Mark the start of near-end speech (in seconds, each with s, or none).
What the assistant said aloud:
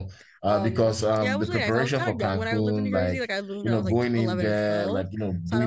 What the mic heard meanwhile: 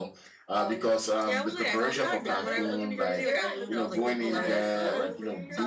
1.8 s